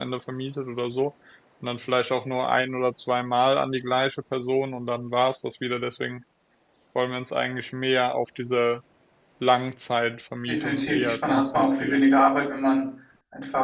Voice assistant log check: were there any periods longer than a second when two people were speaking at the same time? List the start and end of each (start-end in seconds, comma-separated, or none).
10.4-12.0